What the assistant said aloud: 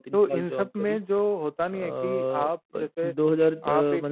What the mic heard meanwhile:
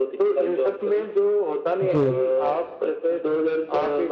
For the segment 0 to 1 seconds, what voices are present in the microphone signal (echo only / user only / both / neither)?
echo only